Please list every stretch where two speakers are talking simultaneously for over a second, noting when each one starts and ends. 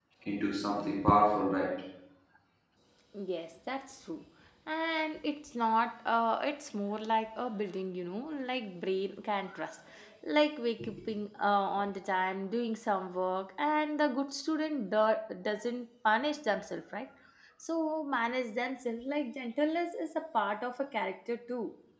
none

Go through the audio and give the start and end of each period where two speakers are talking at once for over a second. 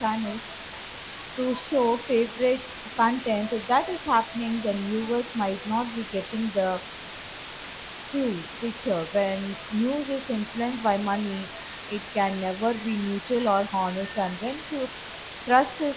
none

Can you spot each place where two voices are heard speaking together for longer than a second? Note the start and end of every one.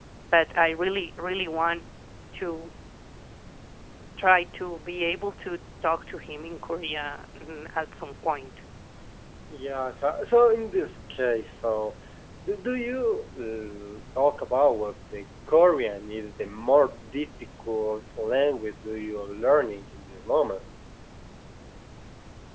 none

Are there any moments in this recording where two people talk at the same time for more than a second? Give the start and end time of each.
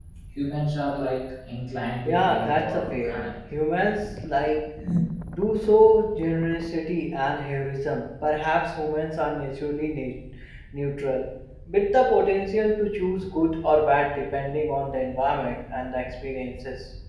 2.0-3.3

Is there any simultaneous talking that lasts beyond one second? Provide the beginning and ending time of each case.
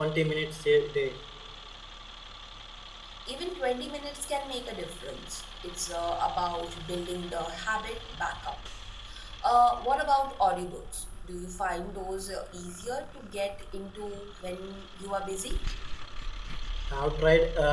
none

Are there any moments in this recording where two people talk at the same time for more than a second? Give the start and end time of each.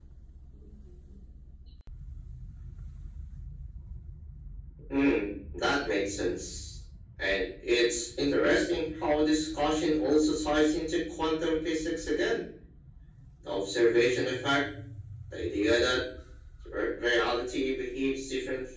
none

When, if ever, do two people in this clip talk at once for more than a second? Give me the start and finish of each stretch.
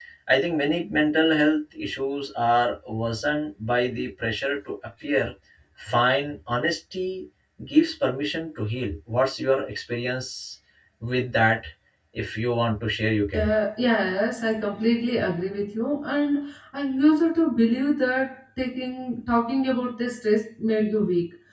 none

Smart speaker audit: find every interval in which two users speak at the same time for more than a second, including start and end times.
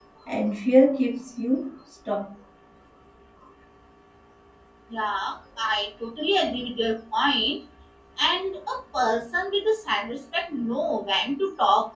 none

